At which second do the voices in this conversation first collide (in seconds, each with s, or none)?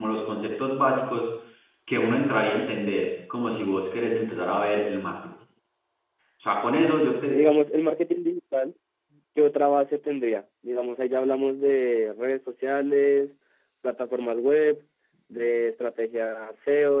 none